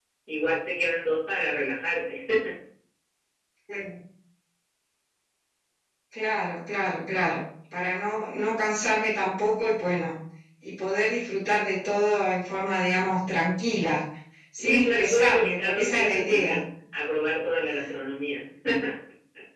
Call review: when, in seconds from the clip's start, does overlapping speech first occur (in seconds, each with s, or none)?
14.6 s